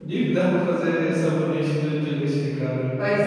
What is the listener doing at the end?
taking over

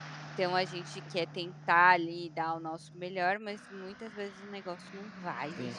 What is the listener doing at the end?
taking over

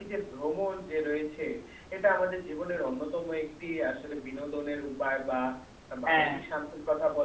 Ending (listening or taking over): listening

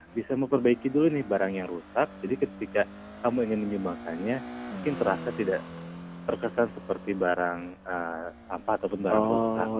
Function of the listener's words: taking over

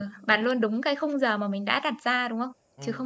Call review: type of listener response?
taking over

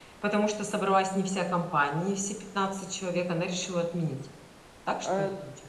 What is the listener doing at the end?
taking over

